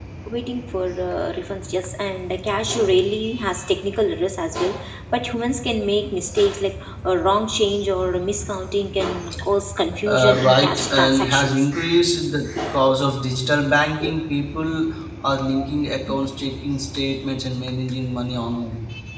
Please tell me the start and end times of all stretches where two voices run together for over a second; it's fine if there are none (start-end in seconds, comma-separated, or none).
10.1-11.7